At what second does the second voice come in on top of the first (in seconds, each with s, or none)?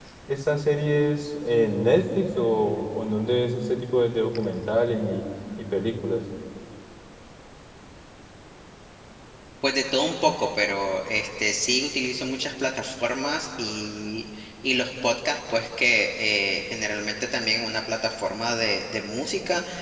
none